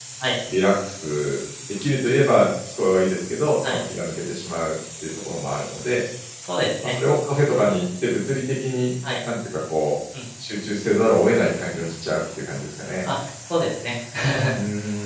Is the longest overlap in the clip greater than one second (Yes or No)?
No